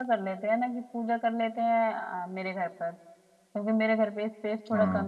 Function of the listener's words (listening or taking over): listening